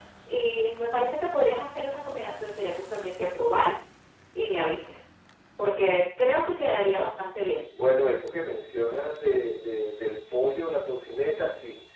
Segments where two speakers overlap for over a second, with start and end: none

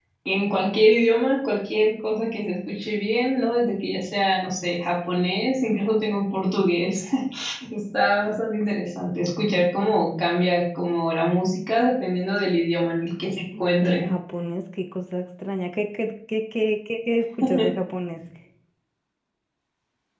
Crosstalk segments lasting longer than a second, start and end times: none

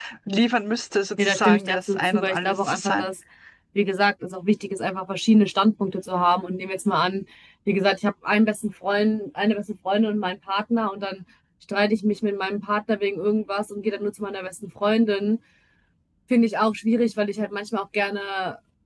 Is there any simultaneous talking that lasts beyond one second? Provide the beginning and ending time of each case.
1.2-3.1

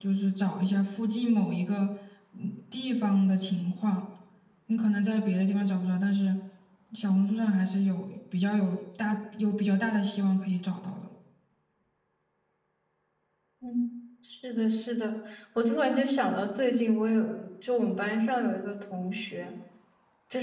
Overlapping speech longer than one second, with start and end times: none

